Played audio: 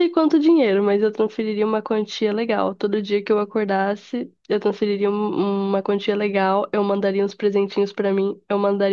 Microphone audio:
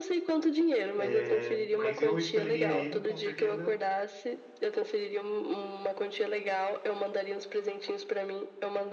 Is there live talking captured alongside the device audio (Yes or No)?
Yes